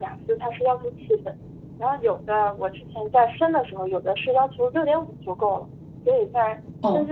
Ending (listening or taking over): listening